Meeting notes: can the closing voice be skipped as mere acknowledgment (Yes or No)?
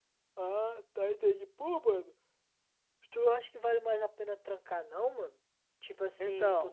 Yes